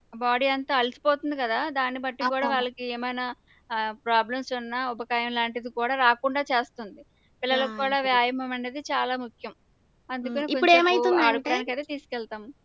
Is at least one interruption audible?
Yes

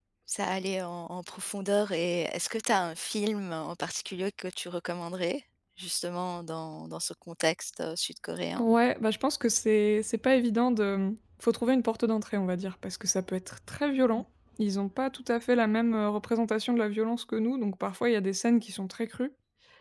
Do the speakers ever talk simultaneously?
No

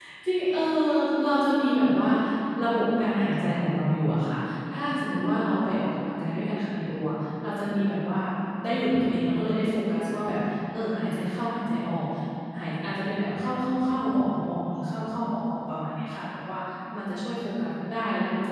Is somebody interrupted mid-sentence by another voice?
No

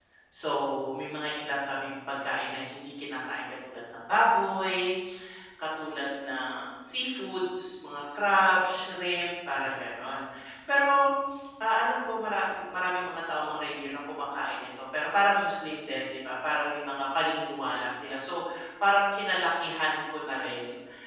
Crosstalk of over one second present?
No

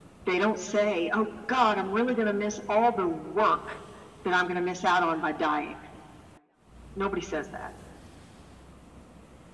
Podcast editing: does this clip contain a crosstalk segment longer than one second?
No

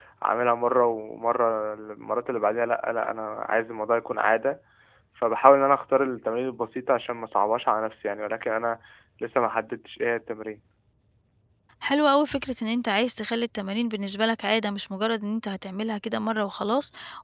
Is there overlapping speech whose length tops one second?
No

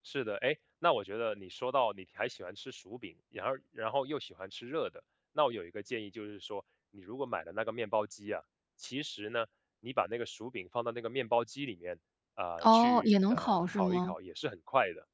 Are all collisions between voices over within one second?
No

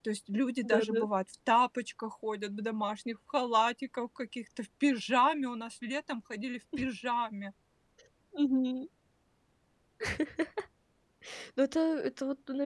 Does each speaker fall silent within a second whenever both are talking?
Yes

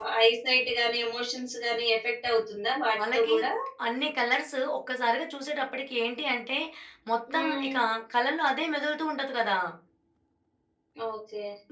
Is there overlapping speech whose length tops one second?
No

